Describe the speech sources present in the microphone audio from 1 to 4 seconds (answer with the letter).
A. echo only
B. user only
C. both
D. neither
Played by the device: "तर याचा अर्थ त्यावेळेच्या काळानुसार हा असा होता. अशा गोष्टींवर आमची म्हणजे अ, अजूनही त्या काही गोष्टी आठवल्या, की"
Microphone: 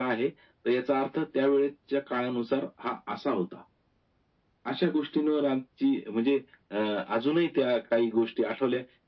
A